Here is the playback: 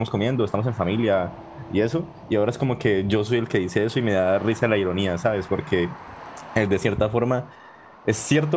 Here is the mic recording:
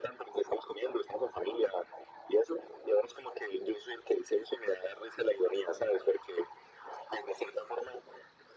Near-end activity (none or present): none